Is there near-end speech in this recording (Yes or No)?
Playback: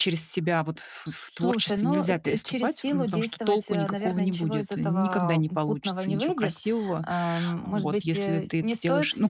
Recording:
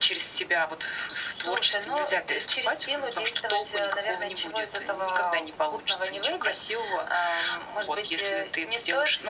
No